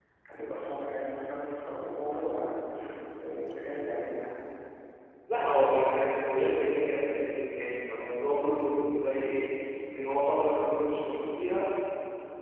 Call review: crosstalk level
none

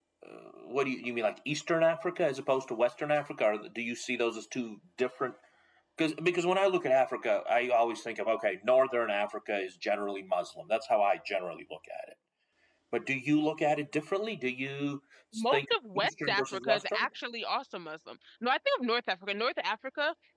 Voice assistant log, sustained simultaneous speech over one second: present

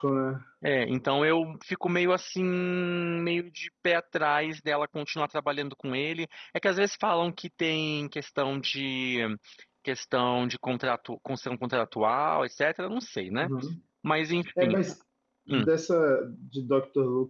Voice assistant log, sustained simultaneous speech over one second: none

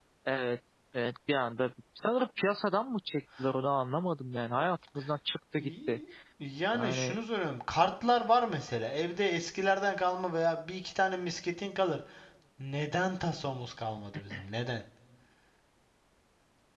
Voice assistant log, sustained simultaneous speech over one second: none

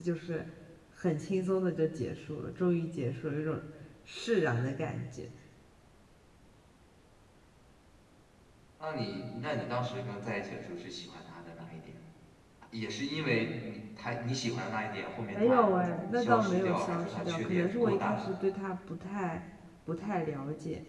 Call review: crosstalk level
present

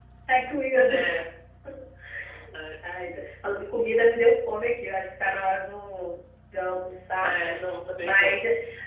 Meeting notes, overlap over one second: none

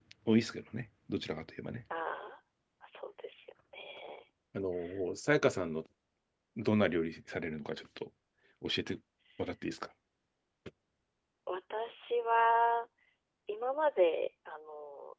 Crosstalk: none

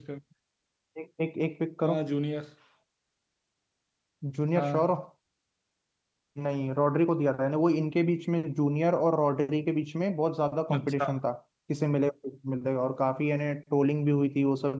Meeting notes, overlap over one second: none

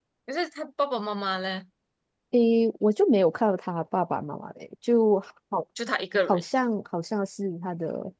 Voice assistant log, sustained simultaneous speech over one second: none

